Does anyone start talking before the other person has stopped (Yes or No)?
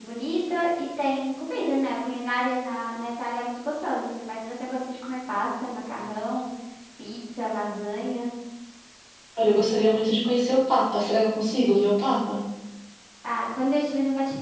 No